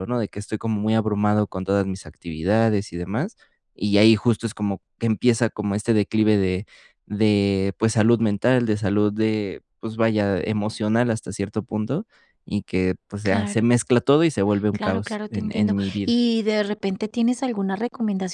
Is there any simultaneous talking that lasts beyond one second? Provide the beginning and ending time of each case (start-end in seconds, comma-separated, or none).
14.7-16.1